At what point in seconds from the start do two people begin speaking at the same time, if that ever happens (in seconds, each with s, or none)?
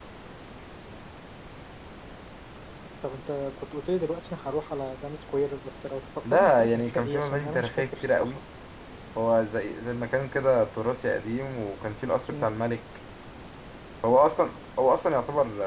6.2 s